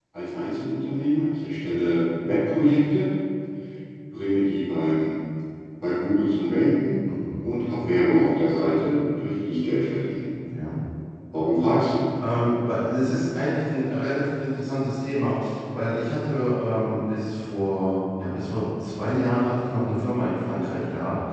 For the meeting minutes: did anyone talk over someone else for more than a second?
No

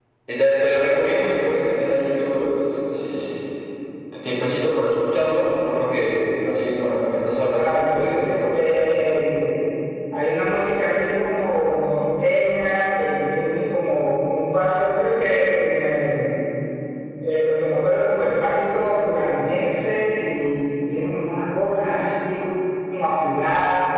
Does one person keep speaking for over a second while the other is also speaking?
Yes, from 7.5 s

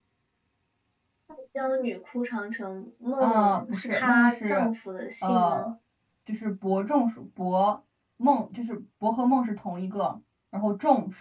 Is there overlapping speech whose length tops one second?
Yes, from 3.2 s

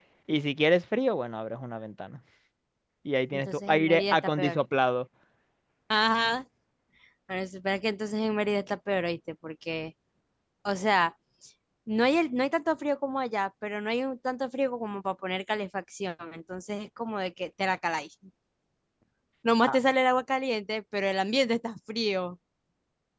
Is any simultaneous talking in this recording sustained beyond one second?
Yes, from 3.3 s

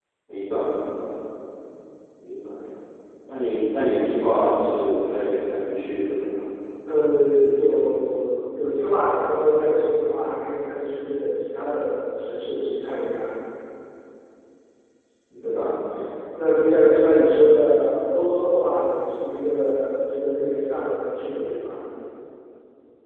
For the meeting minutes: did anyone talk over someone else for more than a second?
No

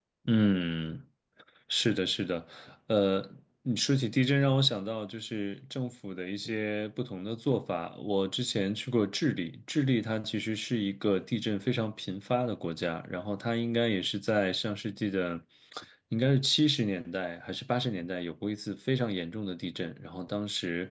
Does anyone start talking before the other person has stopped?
No

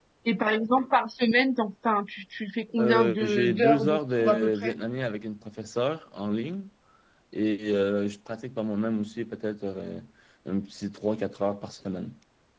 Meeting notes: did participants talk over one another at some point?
Yes, from 2.8 s

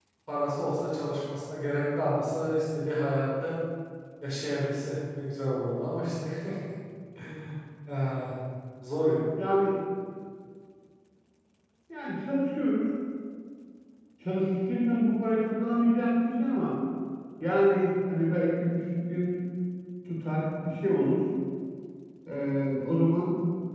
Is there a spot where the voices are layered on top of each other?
No

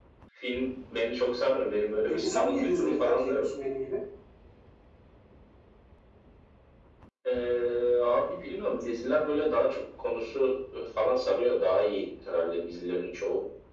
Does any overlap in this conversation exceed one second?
Yes, from 2.1 s

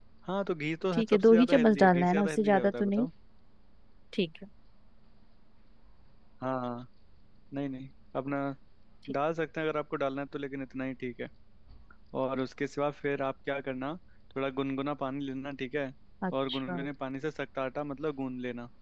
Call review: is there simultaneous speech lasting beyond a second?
Yes, from 0.9 s

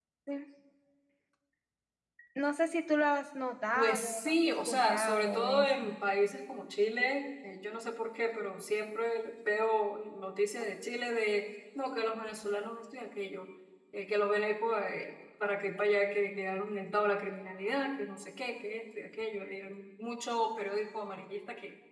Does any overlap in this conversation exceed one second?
Yes, from 3.7 s

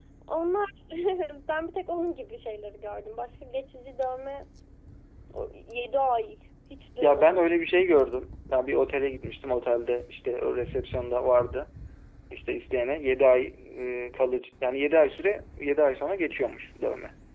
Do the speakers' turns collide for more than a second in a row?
No

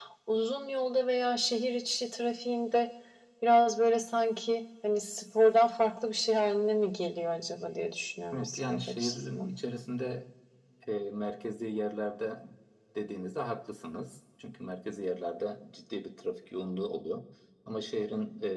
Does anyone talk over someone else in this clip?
Yes, from 8.3 s

